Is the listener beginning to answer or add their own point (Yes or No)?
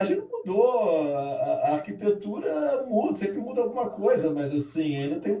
No